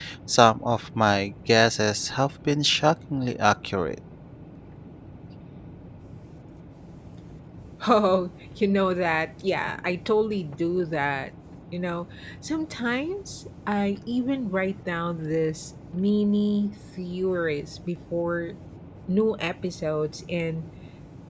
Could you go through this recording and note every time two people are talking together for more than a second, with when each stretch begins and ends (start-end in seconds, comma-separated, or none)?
none